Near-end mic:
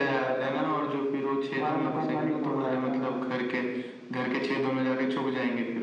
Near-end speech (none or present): none